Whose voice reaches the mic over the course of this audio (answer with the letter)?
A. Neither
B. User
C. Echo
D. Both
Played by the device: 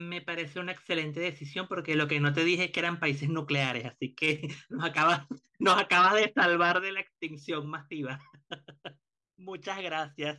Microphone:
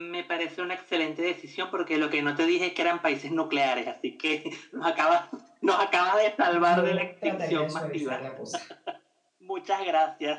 D